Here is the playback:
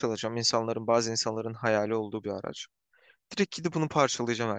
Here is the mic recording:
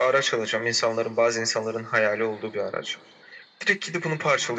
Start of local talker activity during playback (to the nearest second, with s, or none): none